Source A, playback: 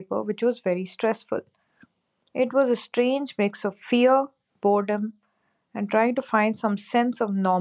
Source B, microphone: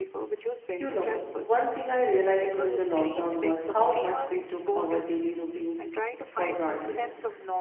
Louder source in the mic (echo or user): user